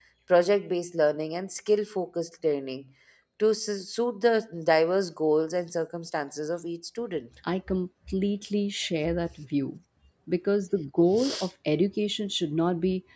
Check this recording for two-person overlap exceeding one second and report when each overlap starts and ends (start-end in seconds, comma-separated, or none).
none